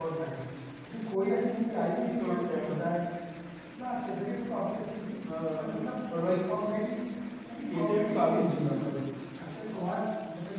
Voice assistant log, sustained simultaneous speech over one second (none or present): present